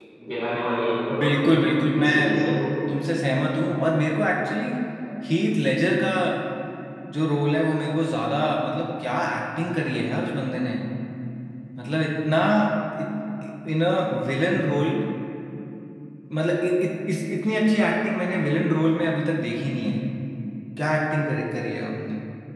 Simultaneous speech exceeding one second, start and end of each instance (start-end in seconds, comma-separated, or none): 1.2-2.5